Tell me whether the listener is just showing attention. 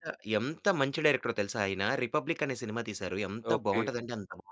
Yes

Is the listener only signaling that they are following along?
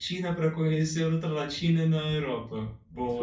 No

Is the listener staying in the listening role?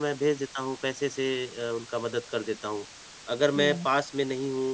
Yes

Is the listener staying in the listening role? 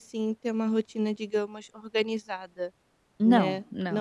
Yes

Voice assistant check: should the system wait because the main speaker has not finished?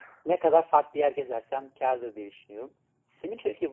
Yes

